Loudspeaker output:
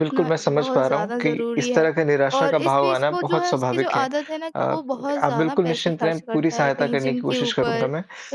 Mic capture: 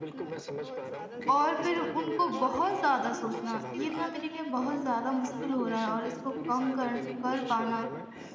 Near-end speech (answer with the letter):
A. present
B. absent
A